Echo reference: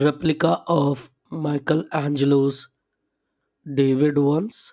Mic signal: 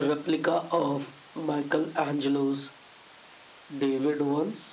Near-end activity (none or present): none